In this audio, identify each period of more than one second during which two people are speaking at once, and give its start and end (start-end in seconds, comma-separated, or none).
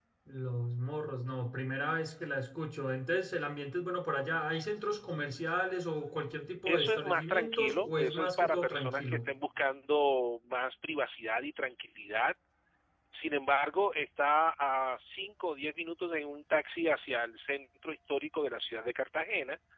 6.7-9.3